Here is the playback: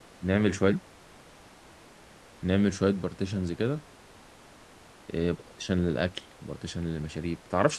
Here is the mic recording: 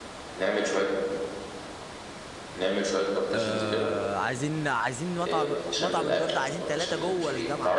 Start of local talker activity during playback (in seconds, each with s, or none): 3.3 s